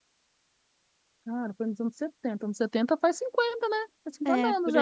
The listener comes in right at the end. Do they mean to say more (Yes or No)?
Yes